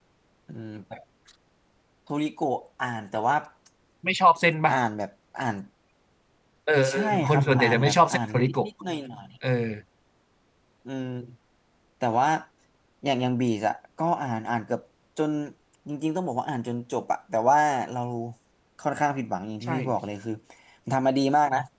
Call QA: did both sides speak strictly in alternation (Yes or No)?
No